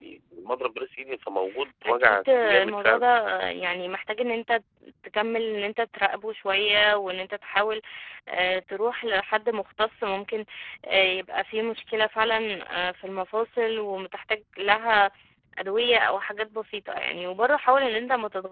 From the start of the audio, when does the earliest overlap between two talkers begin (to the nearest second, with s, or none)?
2 s